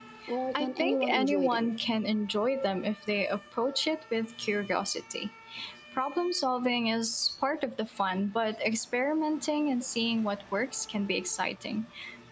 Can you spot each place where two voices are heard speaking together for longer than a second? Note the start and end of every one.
0.5-1.7

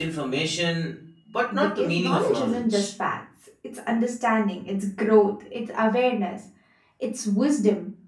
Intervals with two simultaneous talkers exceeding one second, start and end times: 1.6-2.9

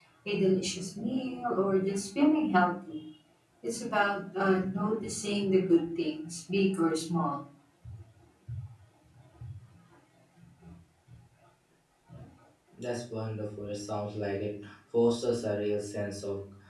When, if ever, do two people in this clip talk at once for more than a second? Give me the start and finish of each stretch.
none

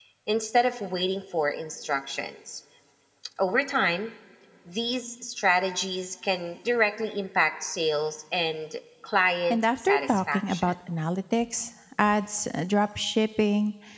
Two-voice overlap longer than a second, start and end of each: 9.5-10.7

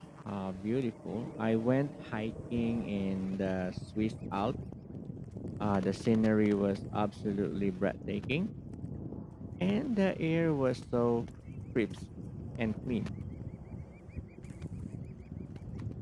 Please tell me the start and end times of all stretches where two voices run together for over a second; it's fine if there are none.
none

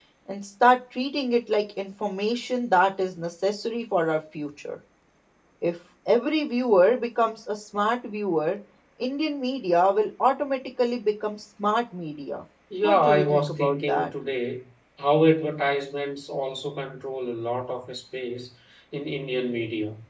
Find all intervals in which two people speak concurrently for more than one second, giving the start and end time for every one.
12.8-14.1

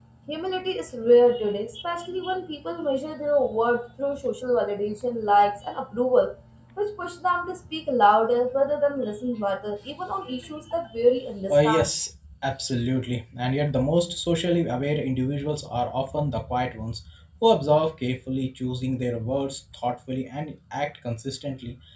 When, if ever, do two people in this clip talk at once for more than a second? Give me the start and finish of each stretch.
none

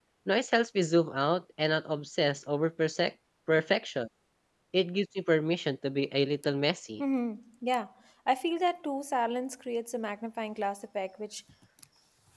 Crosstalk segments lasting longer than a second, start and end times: none

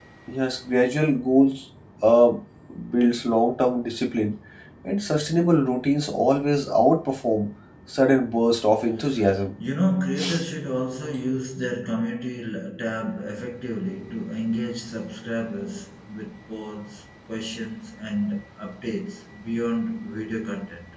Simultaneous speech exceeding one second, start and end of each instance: none

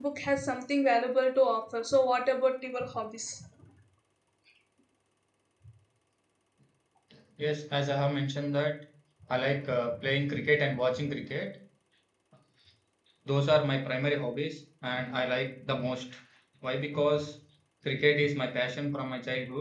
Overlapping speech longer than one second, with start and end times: none

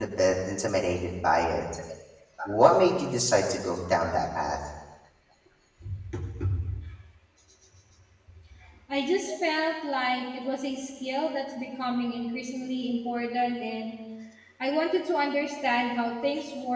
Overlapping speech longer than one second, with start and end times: none

